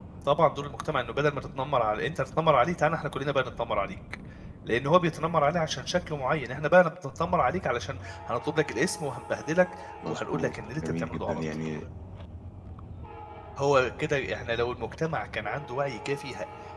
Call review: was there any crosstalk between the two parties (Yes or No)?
Yes